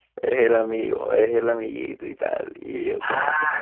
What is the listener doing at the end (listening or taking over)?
taking over